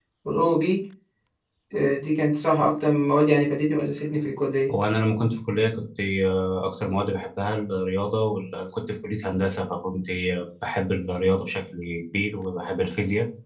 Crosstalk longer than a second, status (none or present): none